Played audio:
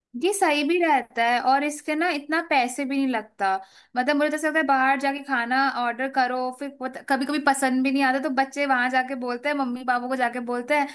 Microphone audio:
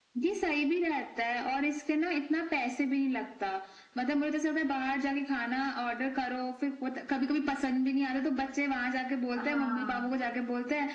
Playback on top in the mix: Yes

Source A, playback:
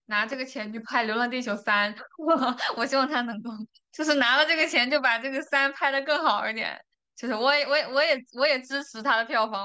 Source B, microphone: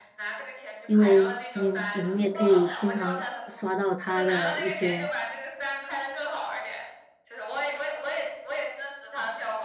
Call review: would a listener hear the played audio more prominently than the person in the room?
No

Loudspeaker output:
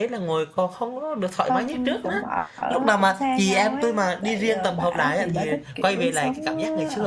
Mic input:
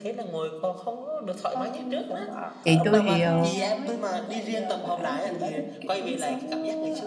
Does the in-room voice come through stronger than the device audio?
Yes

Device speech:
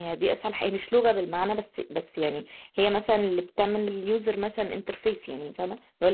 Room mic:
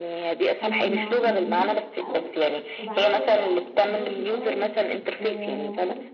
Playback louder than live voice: Yes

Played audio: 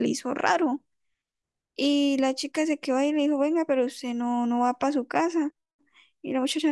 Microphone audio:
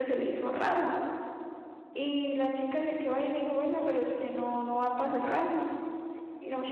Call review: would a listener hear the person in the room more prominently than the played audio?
No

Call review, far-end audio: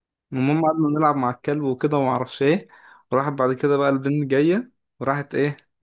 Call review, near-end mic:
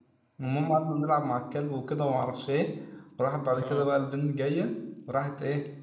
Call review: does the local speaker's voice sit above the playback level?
No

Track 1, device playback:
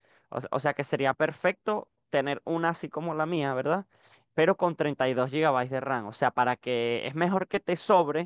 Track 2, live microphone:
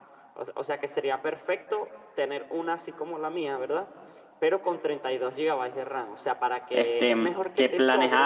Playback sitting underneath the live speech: Yes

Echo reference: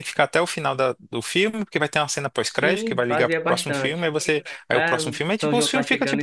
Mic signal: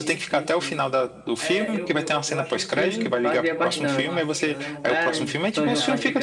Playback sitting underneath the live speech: No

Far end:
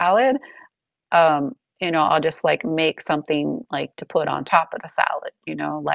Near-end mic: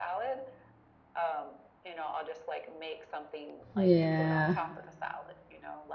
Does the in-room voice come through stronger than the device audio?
Yes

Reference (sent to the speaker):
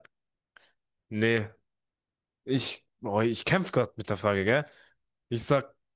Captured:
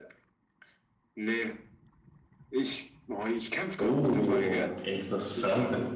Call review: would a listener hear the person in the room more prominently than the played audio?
Yes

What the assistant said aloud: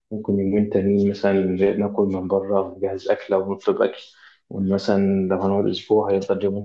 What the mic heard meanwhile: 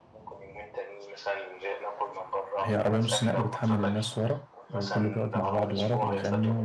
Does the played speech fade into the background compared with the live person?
Yes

